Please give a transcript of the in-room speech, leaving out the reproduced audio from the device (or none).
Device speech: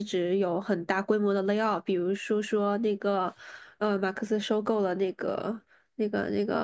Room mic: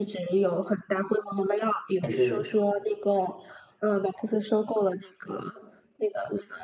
还是？